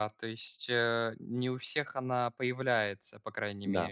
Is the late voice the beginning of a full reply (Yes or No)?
Yes